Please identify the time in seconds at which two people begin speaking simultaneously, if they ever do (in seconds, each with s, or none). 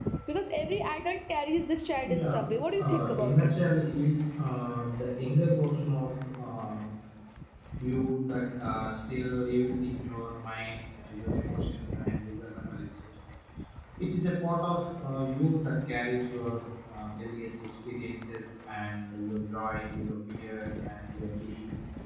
2.0 s